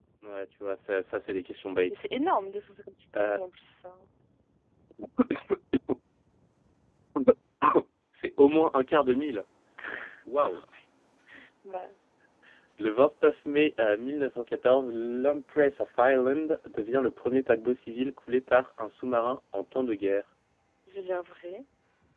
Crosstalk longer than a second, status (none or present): none